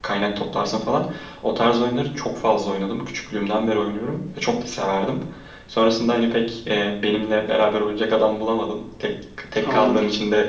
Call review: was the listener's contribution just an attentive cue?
Yes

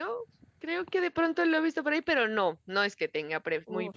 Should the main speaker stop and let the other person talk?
Yes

